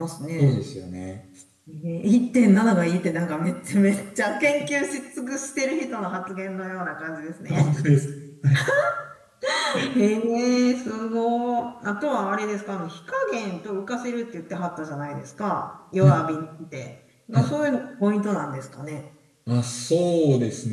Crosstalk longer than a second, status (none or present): none